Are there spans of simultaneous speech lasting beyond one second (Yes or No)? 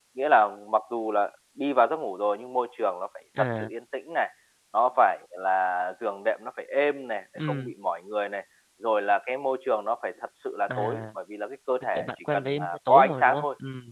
Yes